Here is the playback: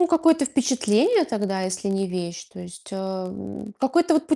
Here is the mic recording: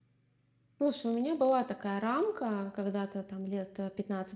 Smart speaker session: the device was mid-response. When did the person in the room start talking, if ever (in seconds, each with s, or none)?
0.8 s